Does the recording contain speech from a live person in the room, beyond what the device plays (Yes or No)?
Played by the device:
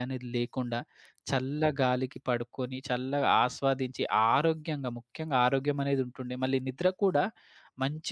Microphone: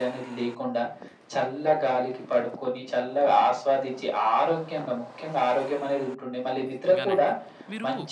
Yes